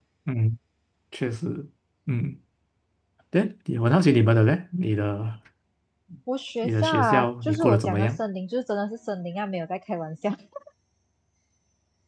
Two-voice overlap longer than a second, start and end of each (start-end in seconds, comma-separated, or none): 6.6-8.1